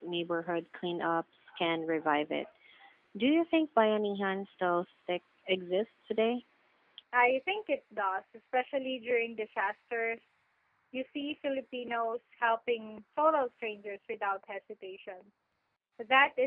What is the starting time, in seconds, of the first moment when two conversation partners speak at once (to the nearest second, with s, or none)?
none